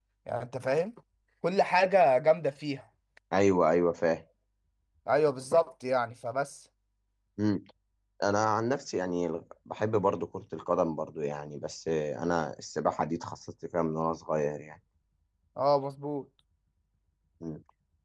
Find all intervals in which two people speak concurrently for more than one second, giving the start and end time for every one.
none

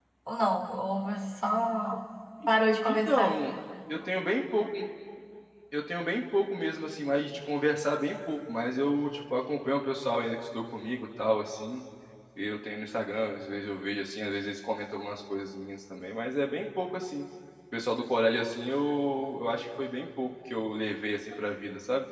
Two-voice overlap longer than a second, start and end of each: none

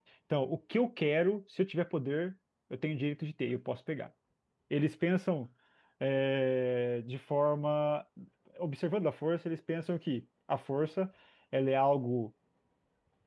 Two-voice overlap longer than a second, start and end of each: none

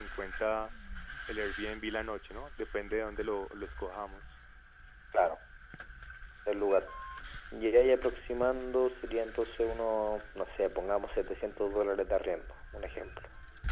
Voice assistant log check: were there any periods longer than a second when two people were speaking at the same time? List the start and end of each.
none

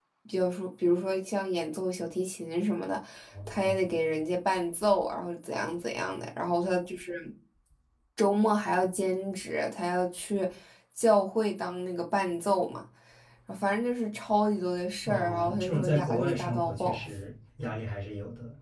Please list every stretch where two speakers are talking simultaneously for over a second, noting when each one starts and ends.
15.0-17.1

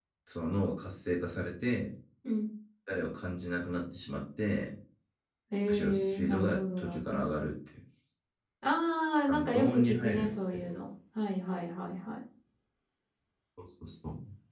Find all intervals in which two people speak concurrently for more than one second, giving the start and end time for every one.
5.7-7.3, 9.3-10.7

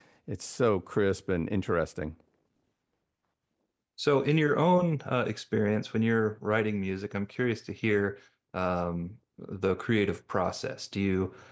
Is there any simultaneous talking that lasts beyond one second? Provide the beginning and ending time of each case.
none

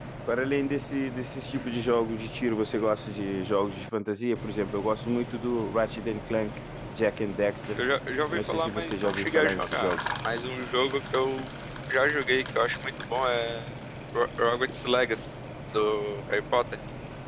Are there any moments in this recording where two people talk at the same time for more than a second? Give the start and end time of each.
8.3-10.0

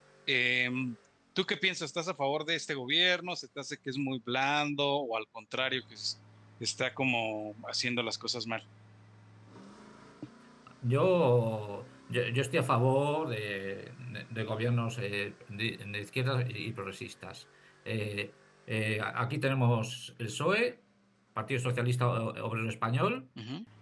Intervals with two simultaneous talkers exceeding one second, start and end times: none

